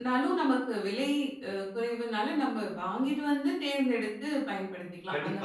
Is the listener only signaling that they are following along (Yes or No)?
No